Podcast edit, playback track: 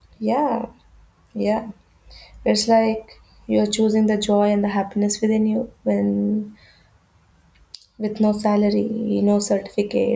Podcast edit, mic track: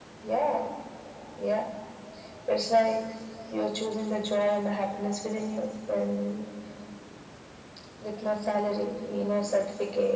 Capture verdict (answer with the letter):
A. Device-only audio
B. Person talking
A